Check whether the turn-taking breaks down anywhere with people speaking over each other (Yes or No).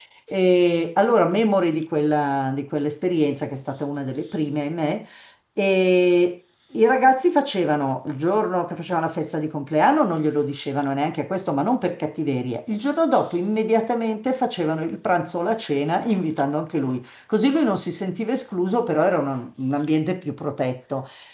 No